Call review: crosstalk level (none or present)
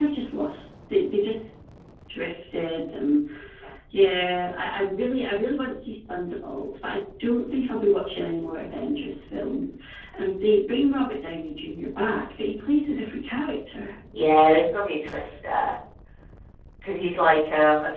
none